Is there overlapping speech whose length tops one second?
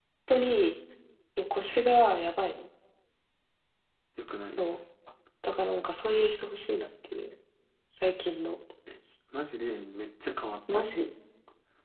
No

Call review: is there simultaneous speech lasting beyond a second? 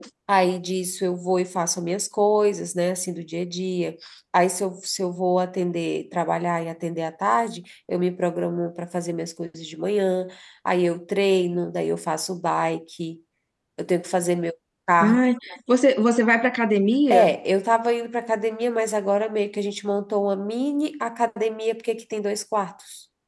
No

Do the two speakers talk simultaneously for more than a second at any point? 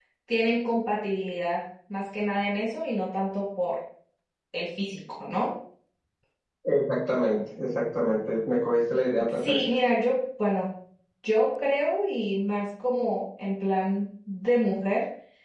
No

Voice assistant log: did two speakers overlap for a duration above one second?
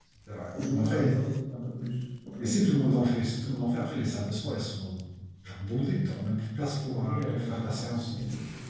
Yes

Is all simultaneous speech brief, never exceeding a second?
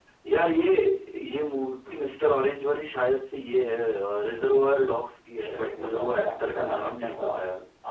No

